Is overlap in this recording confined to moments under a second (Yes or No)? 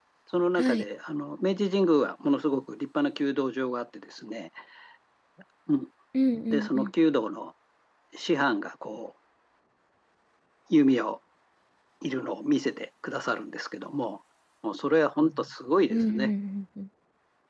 Yes